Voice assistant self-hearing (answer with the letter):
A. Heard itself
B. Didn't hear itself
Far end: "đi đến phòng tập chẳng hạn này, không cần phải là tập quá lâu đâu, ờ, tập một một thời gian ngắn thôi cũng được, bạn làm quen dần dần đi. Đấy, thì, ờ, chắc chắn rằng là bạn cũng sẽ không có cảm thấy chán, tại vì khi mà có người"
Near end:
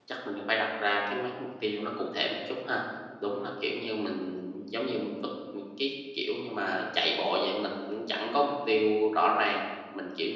B